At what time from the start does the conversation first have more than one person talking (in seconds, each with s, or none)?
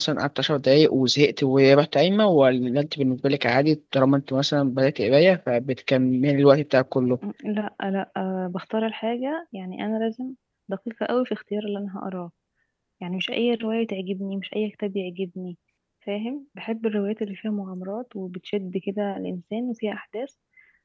none